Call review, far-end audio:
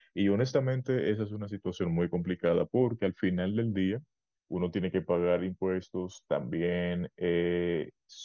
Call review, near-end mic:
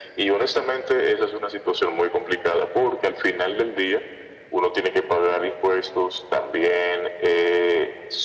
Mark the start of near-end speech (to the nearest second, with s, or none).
none